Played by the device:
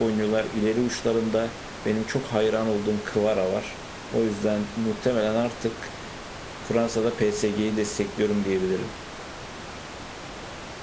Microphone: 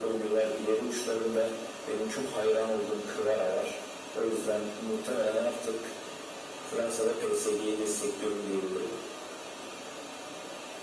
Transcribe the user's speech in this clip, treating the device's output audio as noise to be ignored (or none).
none